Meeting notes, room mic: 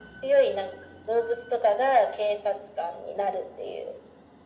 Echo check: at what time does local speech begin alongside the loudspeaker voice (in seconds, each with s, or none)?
none